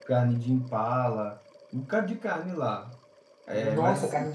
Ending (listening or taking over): taking over